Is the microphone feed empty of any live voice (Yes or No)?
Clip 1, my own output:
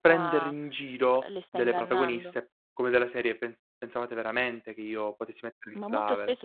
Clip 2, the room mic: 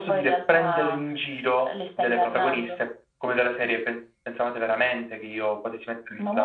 Yes